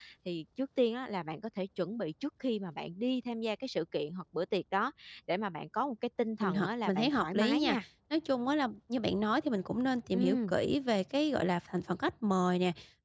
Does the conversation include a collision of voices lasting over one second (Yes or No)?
Yes